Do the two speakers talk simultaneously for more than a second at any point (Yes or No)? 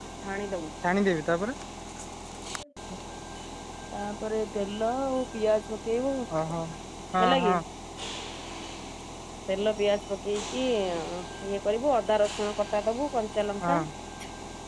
No